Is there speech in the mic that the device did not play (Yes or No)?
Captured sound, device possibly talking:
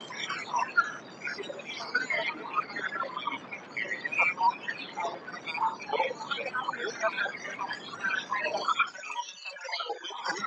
No